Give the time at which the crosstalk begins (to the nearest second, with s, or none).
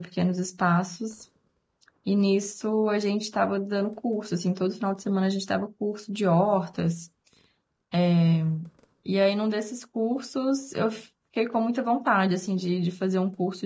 none